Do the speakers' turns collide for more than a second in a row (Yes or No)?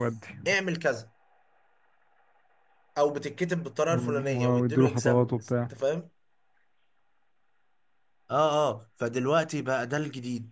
Yes